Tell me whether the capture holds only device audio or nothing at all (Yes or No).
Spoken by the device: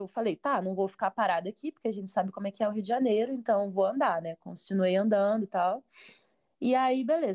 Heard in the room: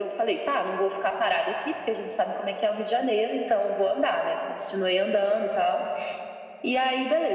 Yes